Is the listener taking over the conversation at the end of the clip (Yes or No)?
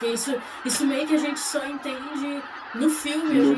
No